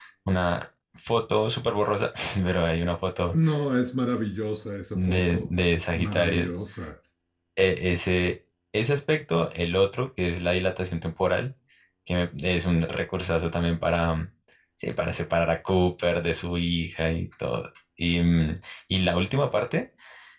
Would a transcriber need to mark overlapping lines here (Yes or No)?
Yes